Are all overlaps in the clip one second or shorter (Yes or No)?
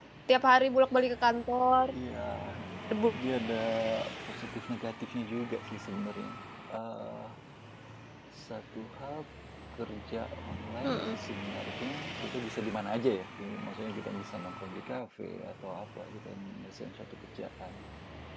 Yes